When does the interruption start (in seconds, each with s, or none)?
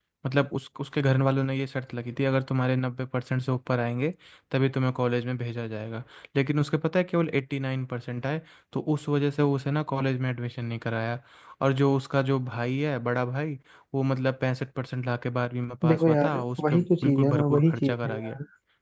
15.8 s